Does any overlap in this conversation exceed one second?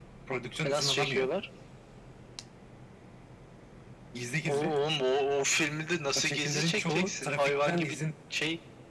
Yes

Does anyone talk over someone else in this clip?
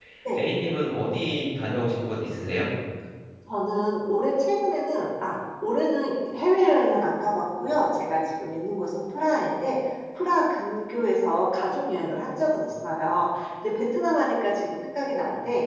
No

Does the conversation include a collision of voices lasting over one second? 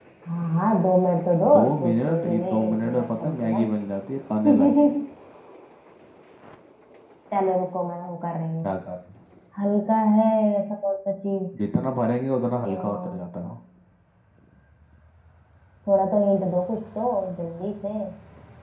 Yes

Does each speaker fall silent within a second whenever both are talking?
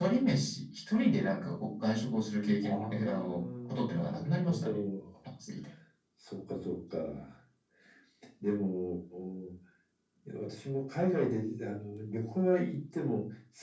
No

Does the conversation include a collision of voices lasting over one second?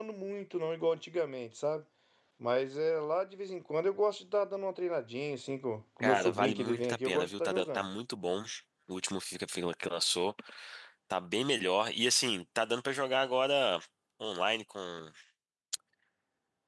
Yes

